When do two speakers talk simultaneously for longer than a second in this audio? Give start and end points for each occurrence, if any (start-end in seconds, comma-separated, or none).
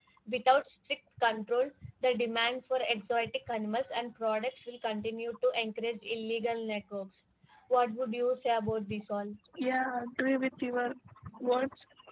none